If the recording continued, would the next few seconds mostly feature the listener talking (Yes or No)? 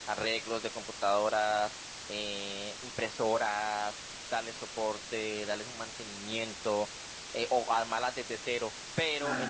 No